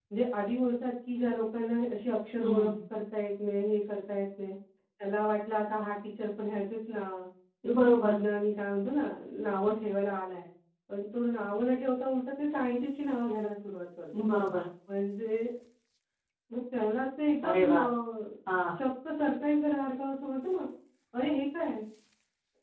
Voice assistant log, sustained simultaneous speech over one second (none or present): none